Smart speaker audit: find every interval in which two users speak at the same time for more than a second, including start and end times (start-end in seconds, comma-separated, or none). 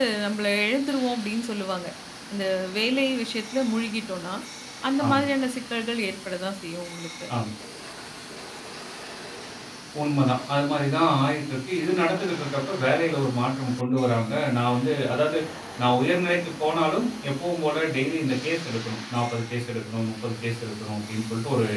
none